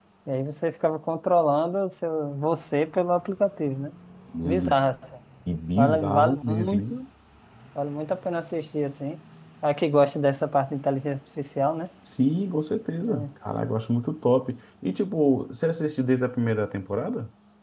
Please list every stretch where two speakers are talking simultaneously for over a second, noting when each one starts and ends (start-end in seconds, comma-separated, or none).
5.8-7.0